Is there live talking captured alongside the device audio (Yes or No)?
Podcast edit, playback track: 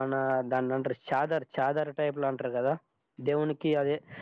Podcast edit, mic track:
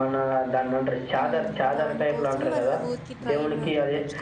Yes